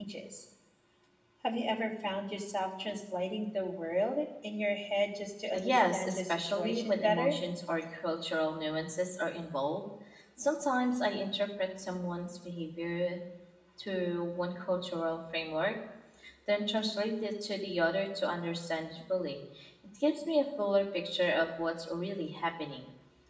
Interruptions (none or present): present